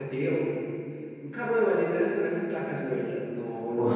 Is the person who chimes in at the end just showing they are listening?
No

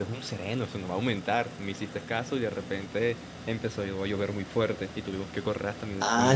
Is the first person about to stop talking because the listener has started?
Yes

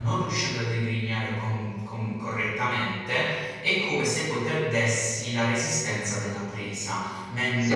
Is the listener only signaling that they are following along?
Yes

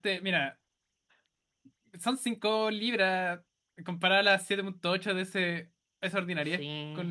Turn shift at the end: Yes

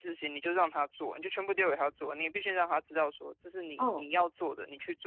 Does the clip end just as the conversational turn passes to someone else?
No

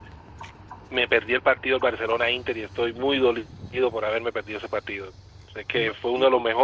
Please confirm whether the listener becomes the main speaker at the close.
No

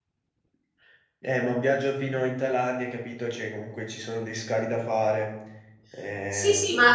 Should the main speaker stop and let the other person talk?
Yes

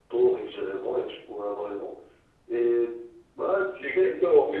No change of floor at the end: No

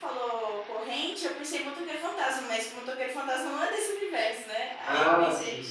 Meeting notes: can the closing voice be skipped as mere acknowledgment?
Yes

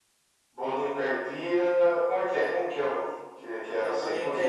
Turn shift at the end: Yes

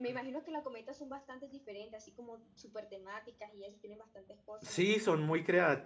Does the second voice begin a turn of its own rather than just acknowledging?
Yes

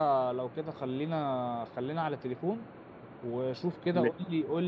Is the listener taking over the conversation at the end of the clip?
No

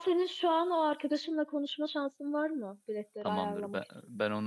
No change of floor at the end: No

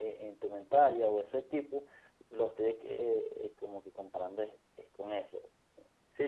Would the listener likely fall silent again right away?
No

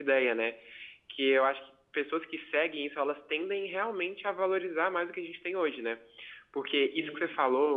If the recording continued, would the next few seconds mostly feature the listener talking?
No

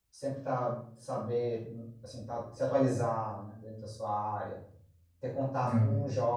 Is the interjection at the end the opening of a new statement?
No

